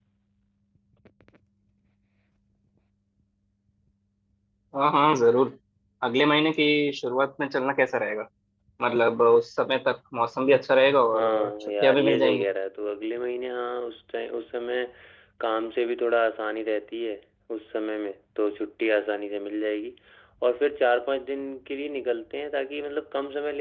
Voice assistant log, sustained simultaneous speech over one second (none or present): present